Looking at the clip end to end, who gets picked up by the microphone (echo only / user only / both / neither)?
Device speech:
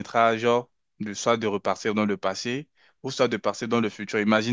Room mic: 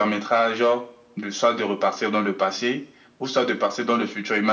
echo only